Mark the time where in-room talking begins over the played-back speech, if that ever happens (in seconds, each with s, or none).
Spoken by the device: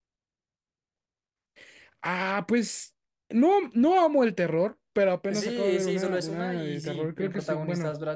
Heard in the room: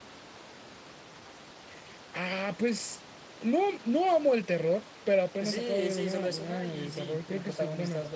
none